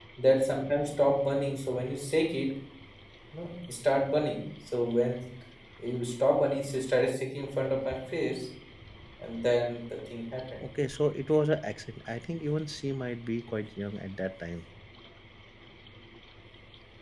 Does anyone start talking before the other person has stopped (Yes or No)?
No